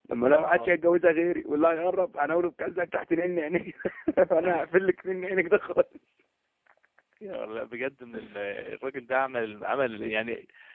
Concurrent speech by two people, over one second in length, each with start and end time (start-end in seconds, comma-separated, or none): none